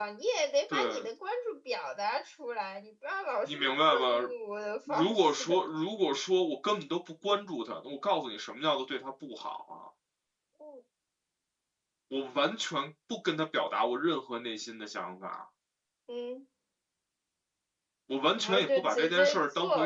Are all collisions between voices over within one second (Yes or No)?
No